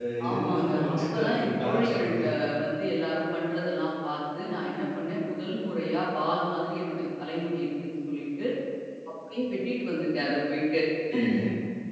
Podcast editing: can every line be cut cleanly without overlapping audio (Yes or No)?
No